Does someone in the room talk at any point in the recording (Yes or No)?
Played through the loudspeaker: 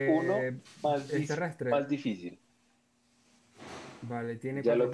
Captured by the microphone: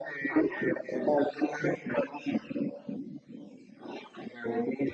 No